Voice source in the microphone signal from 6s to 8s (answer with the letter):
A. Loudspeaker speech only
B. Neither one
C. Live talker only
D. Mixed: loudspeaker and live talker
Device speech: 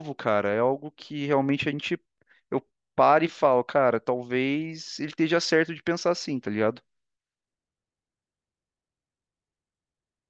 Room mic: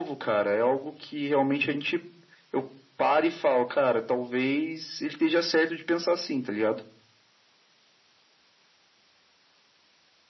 A